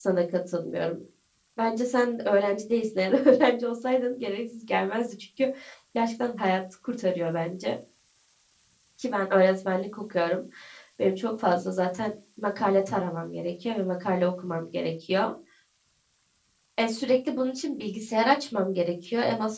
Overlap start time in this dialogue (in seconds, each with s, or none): none